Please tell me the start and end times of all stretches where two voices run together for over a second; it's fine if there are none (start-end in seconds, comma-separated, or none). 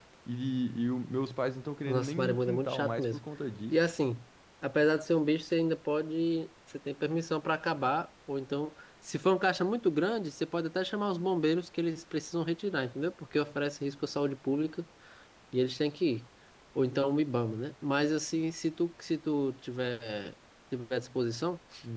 1.9-3.2